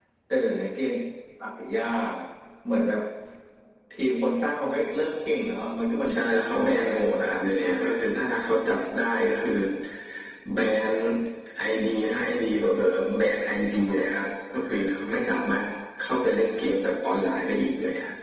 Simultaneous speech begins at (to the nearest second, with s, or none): 6 s